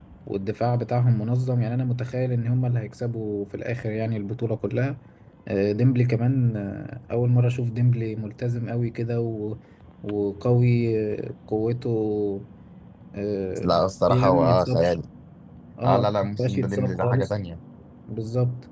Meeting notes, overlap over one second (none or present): present